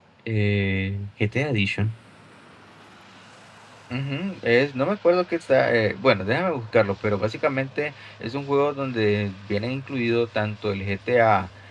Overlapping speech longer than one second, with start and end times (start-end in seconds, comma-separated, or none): none